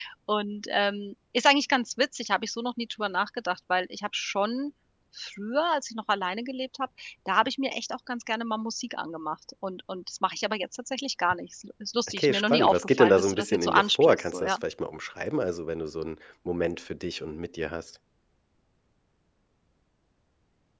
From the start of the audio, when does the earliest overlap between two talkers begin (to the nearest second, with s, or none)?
12 s